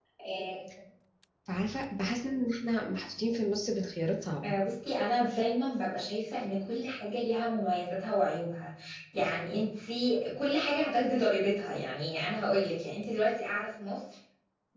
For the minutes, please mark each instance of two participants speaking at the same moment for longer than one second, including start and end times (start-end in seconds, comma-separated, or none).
none